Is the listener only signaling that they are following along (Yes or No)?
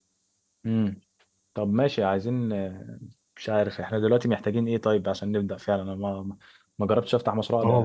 Yes